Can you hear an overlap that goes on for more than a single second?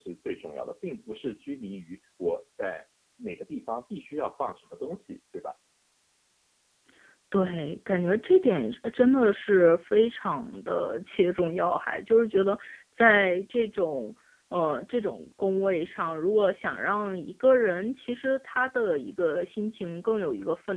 No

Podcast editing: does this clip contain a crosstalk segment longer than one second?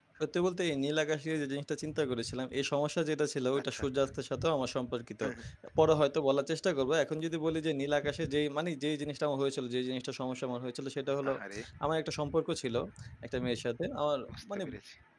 No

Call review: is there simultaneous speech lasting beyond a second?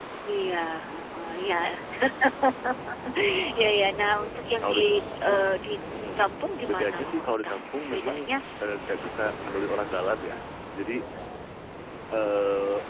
Yes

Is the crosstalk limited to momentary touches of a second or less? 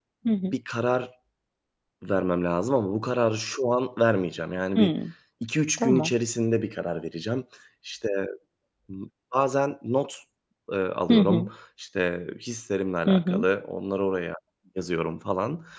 Yes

